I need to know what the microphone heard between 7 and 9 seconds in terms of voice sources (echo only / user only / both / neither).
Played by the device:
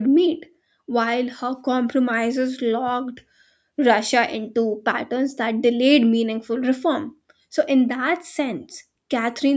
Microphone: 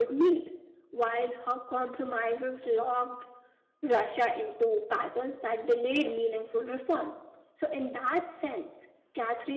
echo only